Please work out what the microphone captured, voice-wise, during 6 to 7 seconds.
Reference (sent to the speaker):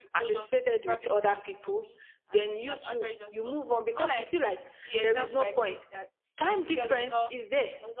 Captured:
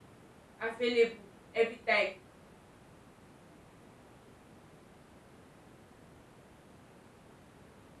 neither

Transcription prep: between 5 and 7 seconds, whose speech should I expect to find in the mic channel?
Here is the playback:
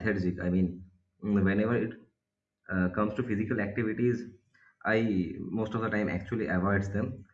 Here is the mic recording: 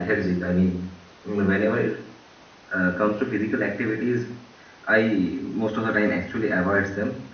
echo only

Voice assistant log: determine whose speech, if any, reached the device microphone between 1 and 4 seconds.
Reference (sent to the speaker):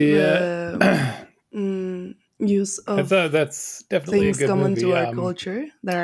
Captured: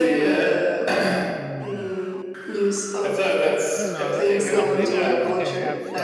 both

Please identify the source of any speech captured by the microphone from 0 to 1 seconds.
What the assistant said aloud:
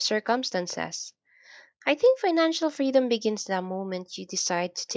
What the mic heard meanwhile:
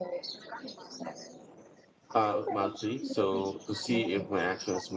echo only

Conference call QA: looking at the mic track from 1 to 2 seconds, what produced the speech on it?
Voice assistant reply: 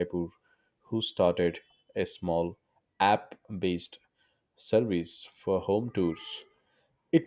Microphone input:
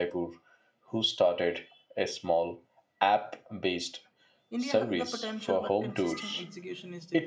echo only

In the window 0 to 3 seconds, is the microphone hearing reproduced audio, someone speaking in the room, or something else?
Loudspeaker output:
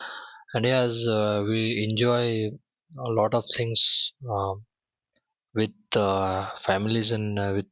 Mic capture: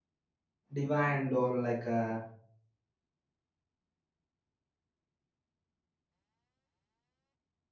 user only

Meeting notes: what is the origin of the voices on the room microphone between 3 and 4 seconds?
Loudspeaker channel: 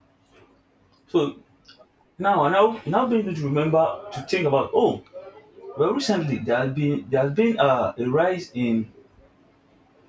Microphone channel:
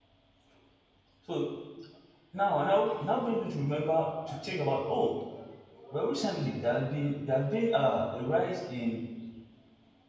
echo only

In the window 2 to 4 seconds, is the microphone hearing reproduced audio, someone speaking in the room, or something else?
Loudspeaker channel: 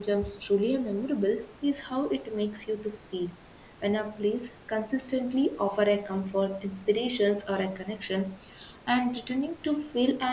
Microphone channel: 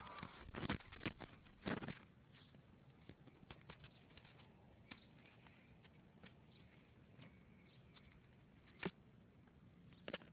neither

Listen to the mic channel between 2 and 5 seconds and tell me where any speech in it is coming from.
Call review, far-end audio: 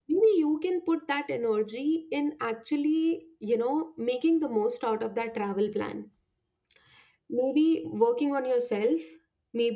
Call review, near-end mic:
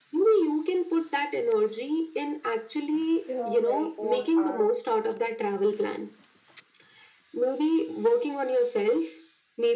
both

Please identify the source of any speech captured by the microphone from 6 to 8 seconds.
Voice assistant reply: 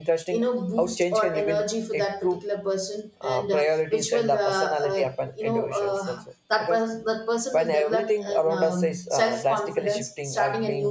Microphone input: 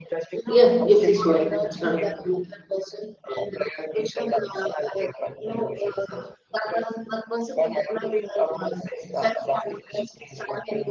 echo only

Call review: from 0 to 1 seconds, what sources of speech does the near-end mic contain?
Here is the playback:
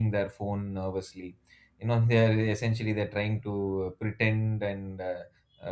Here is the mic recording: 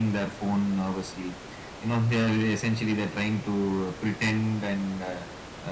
echo only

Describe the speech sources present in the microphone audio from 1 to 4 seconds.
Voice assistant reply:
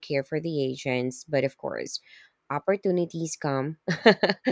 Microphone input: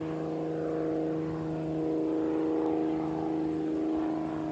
neither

